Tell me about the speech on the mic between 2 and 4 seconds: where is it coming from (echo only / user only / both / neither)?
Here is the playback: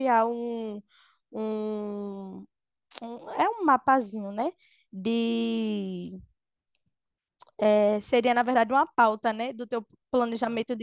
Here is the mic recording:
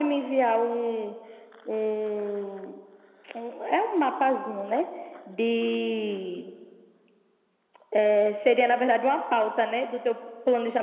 echo only